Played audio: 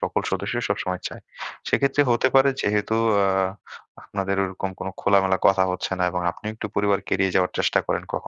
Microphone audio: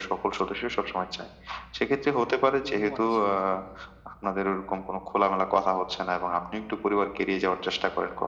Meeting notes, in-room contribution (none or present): present